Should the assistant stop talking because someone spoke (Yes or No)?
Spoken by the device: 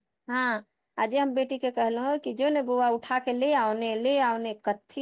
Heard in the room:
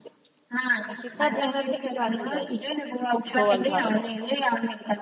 Yes